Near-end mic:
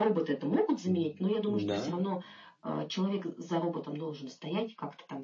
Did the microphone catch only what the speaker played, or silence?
No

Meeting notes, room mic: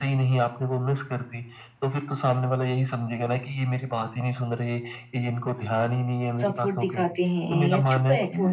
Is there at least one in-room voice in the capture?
Yes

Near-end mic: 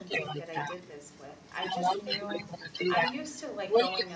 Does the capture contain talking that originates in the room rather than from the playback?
Yes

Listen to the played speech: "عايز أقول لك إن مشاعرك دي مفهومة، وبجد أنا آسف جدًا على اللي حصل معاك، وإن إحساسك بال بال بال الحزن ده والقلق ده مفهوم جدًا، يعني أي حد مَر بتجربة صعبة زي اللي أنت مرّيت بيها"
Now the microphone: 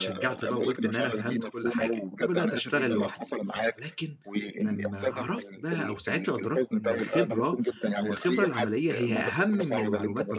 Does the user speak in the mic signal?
Yes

